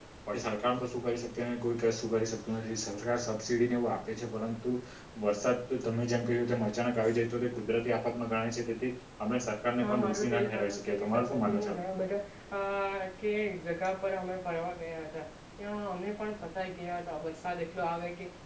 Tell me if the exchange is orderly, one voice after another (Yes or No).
No